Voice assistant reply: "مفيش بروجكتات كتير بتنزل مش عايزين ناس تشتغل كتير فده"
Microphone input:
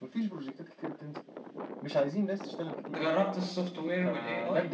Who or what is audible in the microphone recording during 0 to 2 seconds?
echo only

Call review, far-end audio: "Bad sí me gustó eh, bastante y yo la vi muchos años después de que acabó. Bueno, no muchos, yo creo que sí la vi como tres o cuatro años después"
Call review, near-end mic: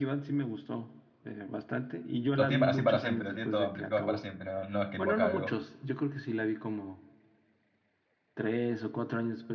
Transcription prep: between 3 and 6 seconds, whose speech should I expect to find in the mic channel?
both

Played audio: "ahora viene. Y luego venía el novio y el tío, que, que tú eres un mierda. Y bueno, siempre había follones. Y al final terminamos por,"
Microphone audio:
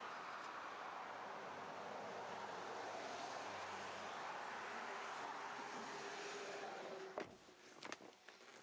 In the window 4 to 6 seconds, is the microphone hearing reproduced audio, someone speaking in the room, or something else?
neither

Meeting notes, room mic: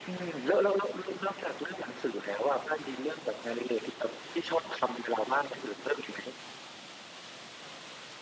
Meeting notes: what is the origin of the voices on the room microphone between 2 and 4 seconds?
echo only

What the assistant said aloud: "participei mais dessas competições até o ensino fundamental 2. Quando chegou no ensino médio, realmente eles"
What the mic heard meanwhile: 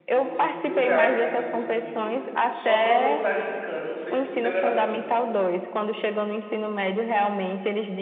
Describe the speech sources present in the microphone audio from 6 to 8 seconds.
echo only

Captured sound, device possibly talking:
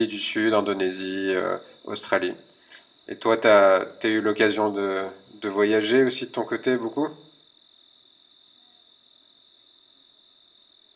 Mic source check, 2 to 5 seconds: user only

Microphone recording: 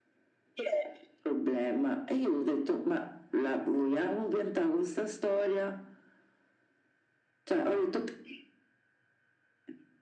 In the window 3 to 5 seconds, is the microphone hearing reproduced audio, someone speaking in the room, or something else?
echo only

